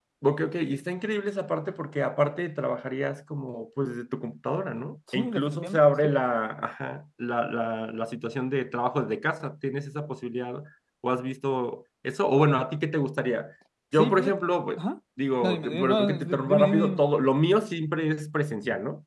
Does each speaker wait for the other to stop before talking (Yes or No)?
No